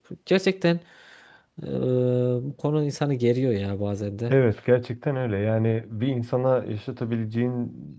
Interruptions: none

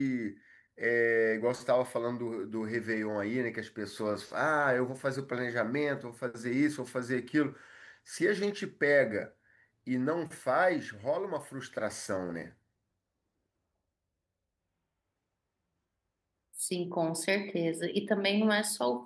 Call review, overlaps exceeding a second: none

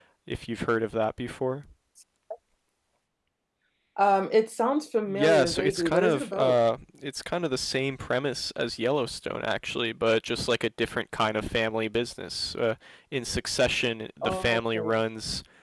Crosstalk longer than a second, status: present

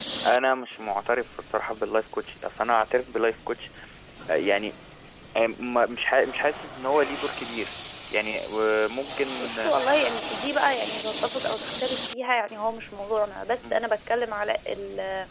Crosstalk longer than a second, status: none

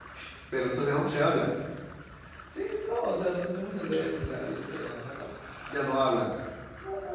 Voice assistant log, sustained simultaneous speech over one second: none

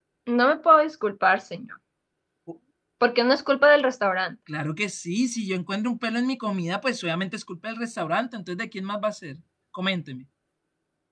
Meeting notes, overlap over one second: none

